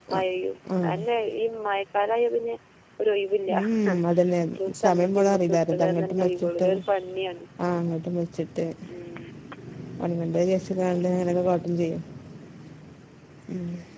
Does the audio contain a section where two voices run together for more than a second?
Yes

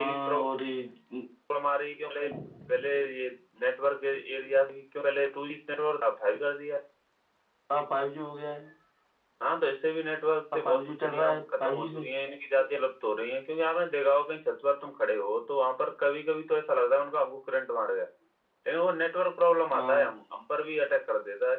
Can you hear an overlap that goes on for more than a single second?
Yes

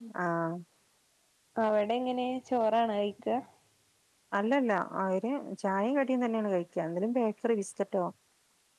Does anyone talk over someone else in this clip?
No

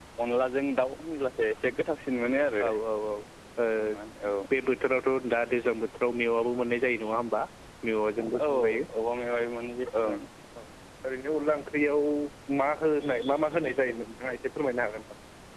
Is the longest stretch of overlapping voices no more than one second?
Yes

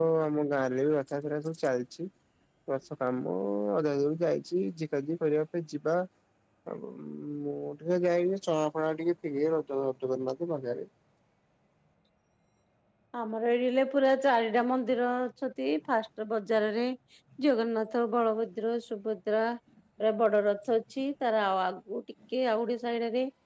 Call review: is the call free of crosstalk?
Yes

